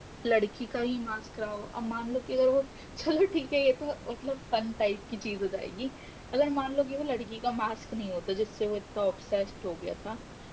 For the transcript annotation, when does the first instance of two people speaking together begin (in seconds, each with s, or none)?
none